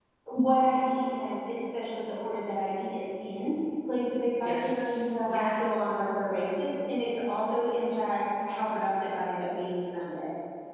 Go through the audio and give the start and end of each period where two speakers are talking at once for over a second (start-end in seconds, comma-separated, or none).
4.4-5.9